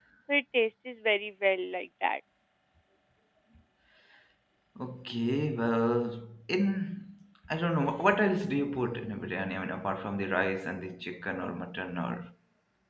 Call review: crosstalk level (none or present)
none